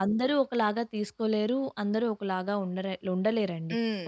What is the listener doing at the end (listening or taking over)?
listening